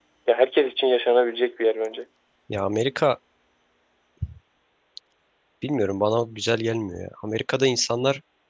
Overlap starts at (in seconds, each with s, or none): none